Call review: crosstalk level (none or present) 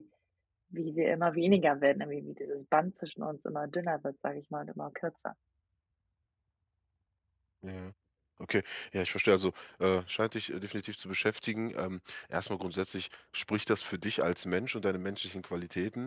none